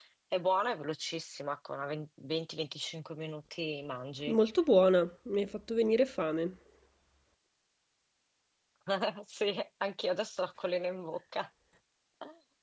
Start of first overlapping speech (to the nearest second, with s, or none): none